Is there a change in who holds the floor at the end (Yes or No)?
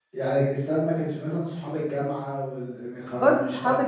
Yes